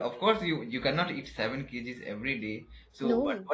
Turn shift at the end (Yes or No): No